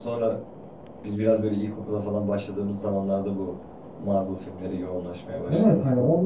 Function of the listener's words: taking over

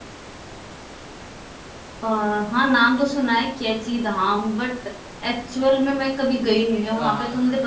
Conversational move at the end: taking over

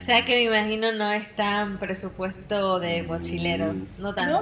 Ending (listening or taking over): taking over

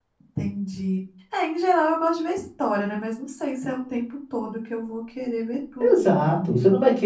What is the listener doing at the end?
taking over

